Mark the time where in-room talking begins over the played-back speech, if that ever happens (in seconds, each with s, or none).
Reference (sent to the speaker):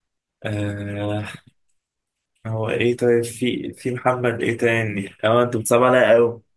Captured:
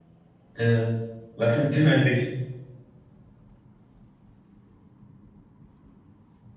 0.6 s